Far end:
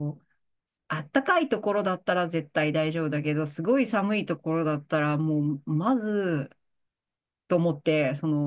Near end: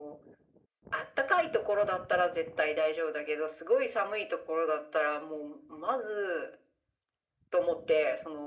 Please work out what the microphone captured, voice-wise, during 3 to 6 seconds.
echo only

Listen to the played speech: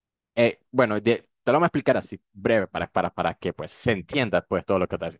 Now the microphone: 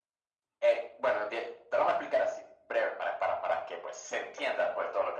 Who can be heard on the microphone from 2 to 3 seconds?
echo only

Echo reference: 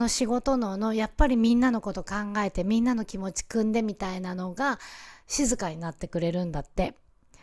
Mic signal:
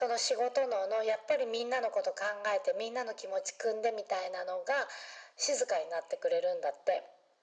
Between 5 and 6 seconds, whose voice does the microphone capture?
echo only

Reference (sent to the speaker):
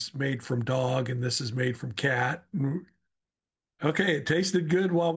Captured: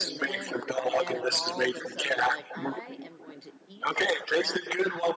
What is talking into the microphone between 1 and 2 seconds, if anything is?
both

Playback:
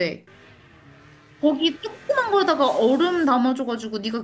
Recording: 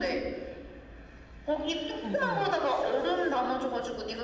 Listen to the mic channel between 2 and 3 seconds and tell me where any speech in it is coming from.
both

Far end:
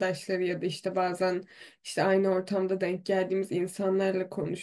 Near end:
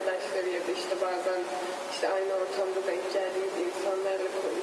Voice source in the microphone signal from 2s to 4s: echo only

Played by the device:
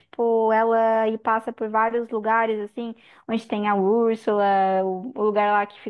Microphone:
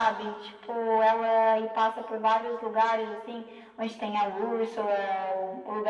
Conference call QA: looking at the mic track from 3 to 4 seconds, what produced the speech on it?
echo only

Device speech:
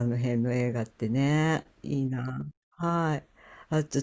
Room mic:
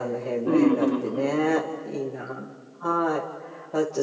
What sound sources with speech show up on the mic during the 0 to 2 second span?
both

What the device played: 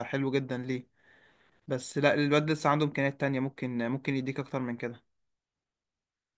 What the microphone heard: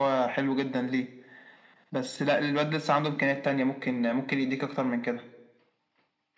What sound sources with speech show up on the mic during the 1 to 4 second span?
echo only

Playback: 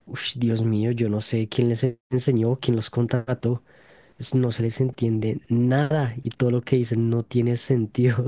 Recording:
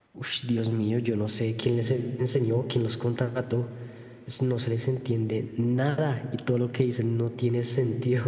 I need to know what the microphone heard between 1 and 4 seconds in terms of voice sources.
echo only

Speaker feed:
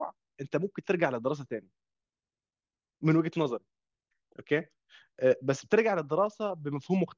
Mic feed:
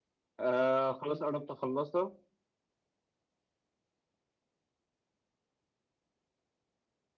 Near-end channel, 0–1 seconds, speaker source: user only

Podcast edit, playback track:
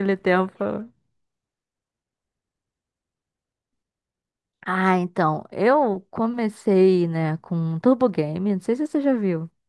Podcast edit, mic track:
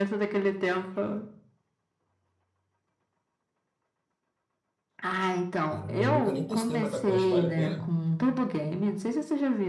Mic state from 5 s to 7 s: both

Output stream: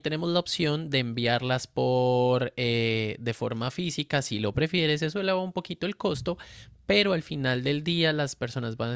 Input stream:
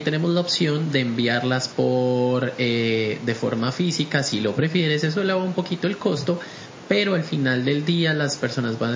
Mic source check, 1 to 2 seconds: echo only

